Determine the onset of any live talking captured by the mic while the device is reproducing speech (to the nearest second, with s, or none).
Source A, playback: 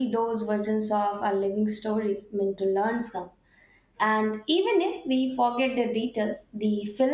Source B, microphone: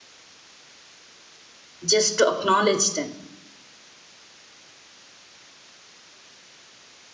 2 s